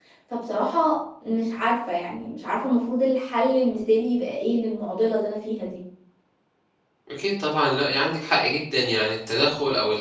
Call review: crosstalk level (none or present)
none